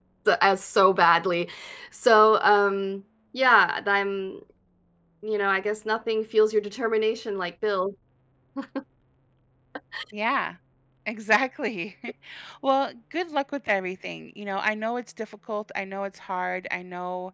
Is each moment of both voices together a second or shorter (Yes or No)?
Yes